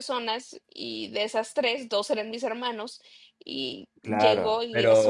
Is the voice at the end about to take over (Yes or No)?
Yes